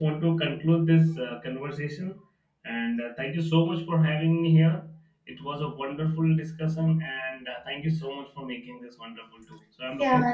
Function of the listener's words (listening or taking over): taking over